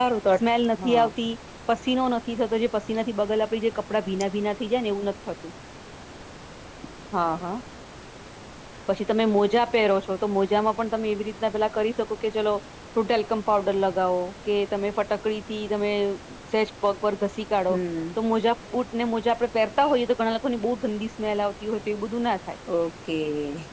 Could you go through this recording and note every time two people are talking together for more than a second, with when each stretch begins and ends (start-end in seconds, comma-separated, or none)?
none